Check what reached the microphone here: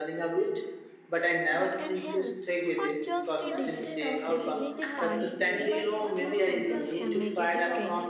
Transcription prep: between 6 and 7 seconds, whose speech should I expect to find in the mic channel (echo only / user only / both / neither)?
both